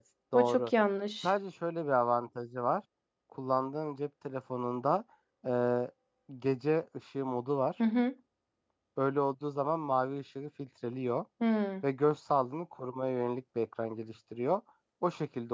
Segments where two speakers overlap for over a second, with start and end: none

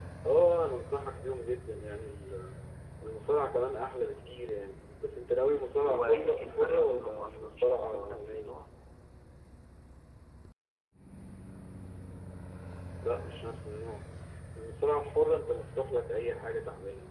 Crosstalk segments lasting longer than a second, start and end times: 5.8-8.6

